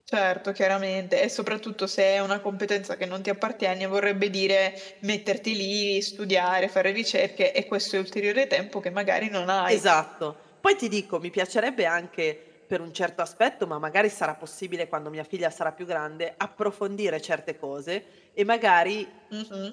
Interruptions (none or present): none